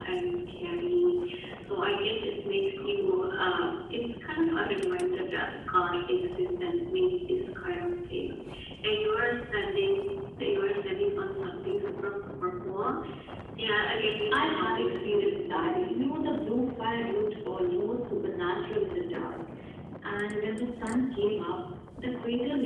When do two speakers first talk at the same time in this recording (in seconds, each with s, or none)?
14.3 s